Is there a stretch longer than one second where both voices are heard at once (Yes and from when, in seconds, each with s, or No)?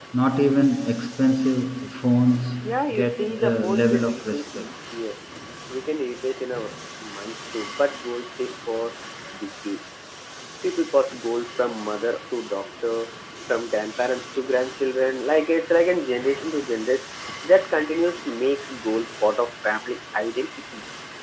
Yes, from 2.9 s